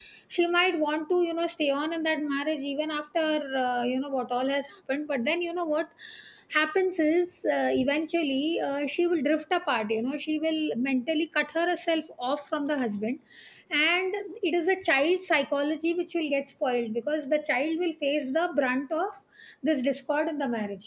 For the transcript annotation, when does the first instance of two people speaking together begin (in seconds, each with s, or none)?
none